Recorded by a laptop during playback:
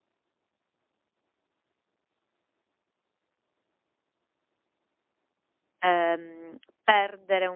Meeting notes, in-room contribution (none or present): present